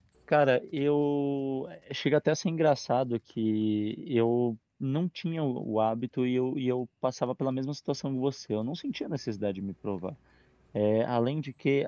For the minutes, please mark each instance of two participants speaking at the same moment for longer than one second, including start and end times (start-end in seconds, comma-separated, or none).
none